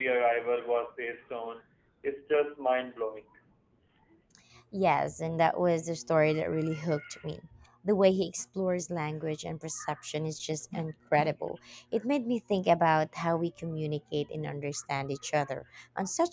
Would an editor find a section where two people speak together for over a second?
No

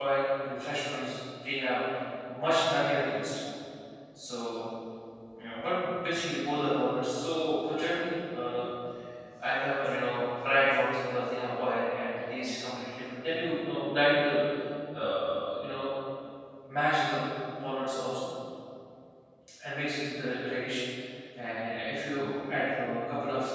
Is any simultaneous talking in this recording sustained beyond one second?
No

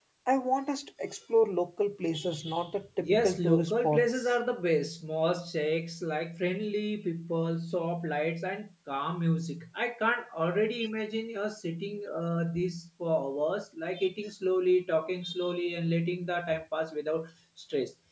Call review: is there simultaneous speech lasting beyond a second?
Yes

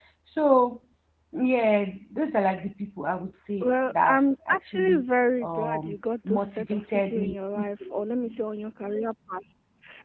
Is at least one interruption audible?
Yes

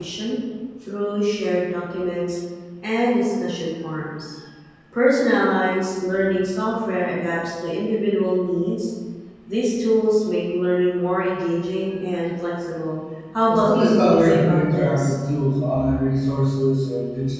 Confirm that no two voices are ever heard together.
No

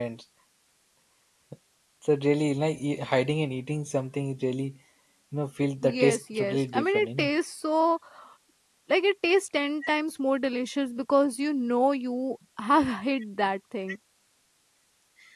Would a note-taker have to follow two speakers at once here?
Yes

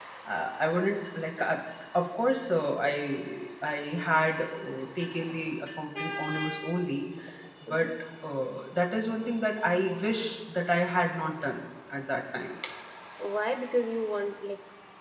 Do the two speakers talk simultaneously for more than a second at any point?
No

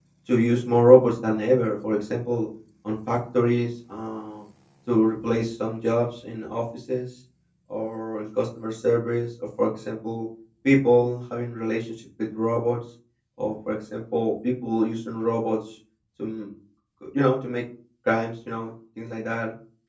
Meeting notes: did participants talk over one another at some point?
No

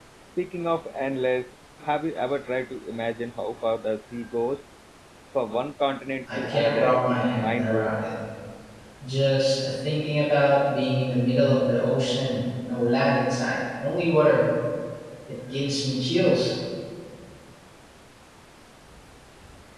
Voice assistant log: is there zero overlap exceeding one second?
No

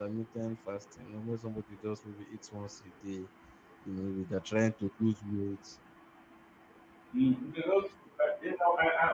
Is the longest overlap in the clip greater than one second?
No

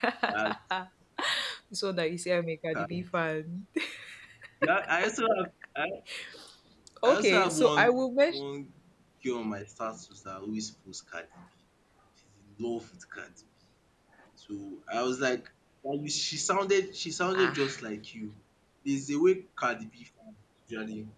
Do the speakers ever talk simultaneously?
Yes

